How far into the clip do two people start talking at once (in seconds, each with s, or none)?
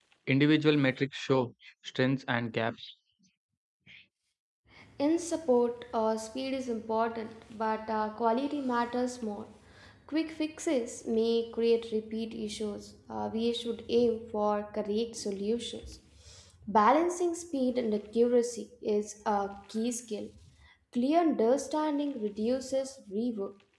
none